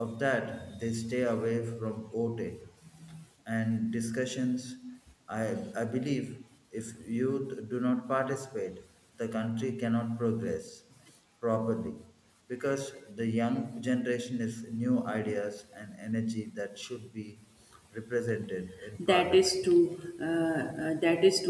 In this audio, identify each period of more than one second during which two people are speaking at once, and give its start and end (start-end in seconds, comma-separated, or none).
none